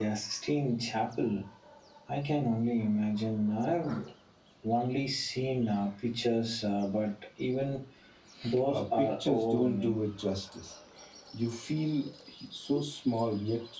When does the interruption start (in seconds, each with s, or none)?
8.7 s